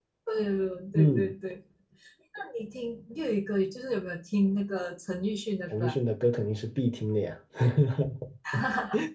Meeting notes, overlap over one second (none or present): none